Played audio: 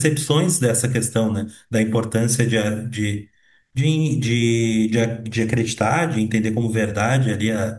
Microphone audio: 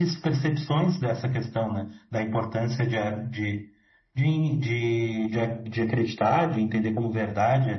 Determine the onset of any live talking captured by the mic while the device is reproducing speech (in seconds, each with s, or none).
none